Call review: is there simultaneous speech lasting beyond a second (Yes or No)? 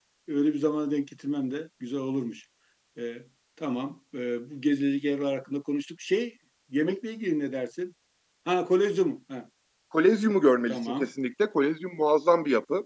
No